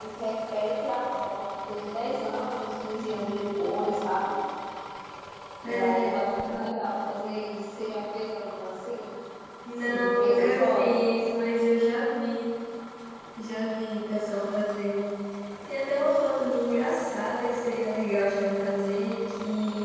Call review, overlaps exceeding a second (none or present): present